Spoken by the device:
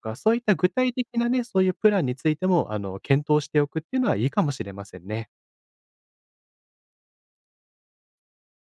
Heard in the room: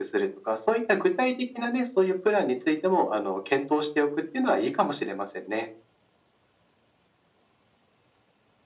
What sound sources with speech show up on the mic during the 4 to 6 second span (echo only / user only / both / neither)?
echo only